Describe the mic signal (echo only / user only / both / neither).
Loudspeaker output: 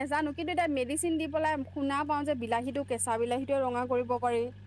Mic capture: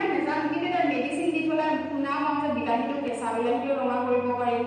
echo only